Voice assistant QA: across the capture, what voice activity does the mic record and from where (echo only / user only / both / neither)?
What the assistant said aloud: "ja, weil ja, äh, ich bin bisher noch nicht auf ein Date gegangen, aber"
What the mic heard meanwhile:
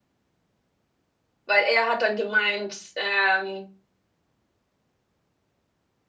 user only